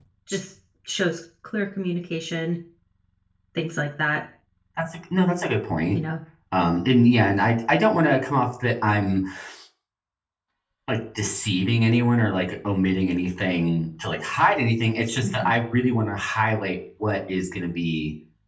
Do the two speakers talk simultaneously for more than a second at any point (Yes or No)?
No